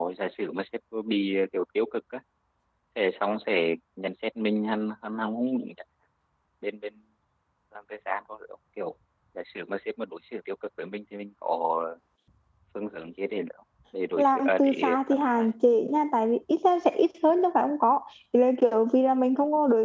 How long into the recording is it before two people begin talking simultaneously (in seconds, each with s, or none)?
14.2 s